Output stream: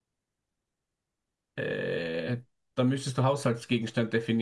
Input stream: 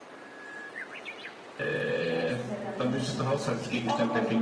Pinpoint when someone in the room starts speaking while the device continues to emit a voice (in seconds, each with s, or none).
2.1 s